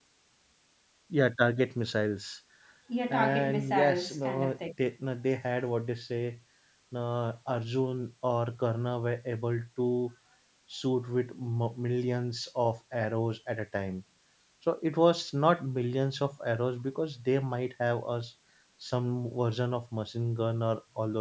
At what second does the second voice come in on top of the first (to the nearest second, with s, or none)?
3 s